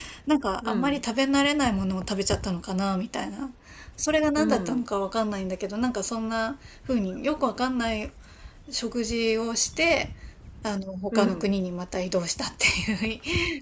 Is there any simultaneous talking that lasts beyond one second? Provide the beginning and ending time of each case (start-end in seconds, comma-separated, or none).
none